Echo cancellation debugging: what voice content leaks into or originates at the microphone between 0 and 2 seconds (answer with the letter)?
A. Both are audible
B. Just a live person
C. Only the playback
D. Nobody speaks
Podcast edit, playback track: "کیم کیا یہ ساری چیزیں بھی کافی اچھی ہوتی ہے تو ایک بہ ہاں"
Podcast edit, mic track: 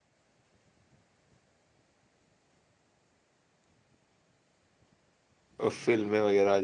D